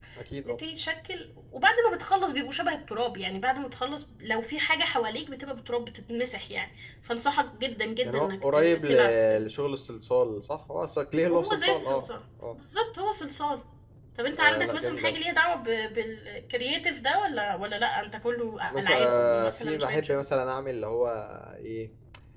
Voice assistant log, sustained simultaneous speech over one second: present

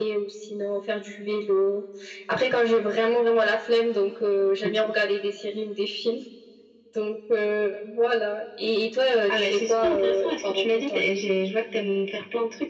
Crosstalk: present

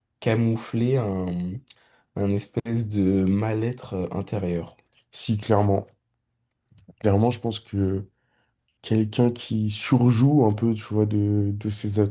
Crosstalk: none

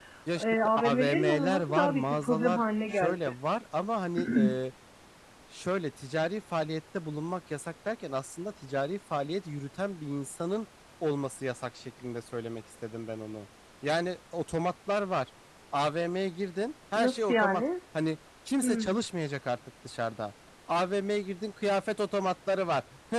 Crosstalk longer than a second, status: present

